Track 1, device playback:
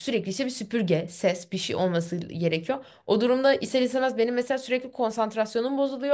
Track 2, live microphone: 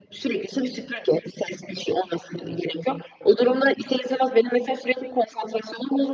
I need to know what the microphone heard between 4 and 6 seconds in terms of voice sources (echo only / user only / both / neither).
echo only